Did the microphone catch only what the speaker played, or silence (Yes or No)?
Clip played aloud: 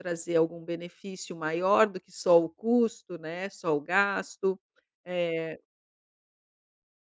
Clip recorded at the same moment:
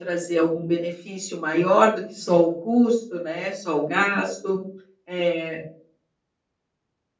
Yes